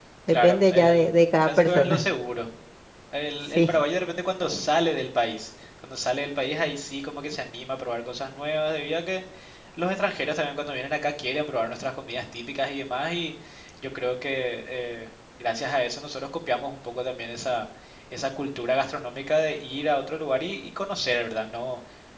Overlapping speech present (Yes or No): Yes